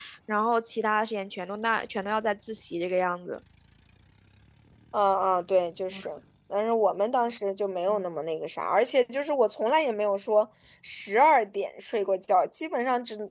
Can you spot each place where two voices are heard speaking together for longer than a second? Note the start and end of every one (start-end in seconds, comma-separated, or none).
none